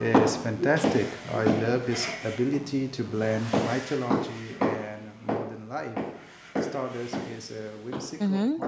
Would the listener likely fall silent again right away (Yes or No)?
No